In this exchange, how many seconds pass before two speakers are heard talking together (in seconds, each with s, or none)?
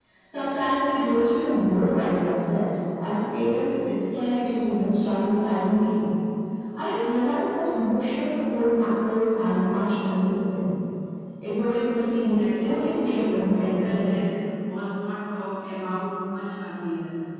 12.3 s